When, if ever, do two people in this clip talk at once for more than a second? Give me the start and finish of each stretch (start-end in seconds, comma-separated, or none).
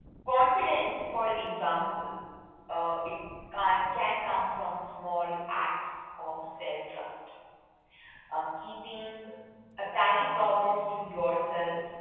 none